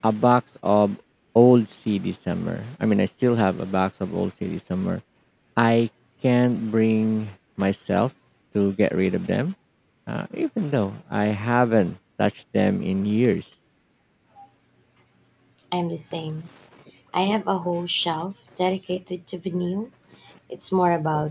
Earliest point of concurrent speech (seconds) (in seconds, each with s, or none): none